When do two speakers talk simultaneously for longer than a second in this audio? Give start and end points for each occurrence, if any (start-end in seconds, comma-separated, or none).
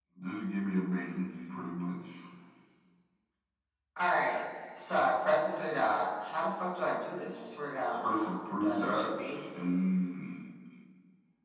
8.0-9.6